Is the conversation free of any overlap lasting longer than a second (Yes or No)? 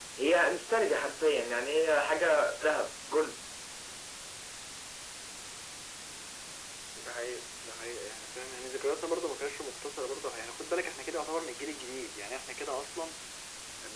Yes